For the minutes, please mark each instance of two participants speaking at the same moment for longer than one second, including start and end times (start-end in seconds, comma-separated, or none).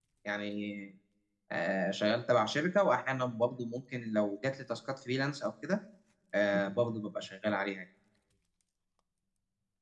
none